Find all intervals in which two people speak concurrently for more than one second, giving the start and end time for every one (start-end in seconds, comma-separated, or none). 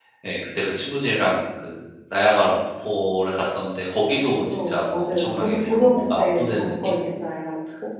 4.2-6.9